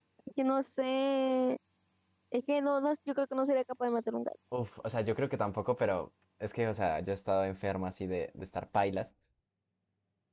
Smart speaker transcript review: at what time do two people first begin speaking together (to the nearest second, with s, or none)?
none